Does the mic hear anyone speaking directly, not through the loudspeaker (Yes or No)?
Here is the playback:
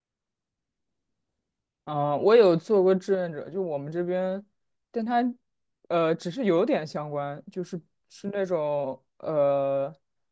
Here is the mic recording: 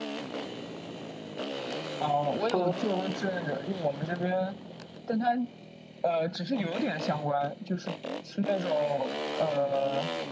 Yes